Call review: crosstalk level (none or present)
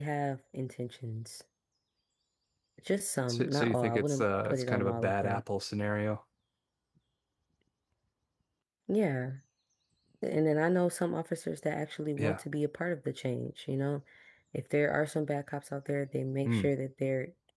present